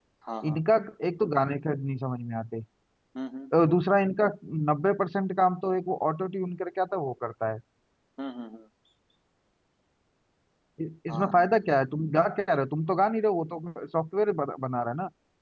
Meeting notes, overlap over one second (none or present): none